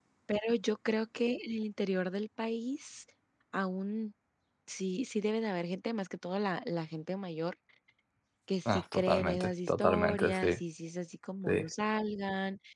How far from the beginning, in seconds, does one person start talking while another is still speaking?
8.7 s

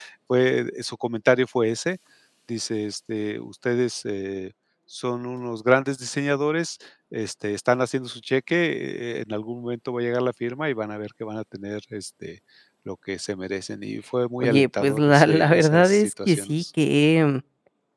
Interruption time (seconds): 14.4 s

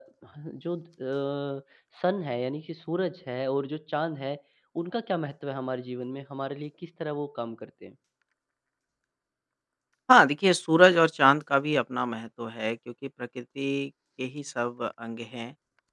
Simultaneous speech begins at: none

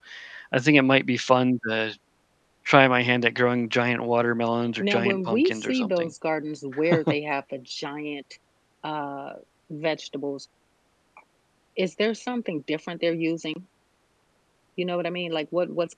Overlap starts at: 4.8 s

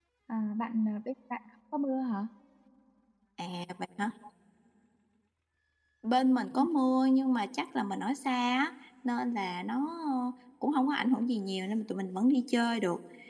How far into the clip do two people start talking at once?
none

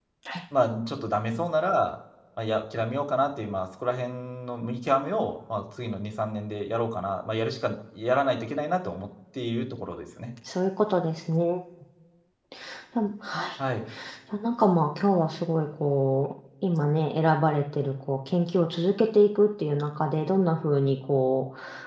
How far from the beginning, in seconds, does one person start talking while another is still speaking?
none

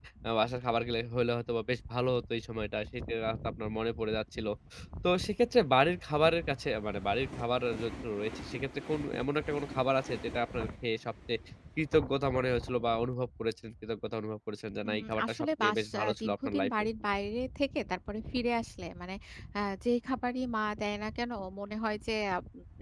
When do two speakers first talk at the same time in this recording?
14.8 s

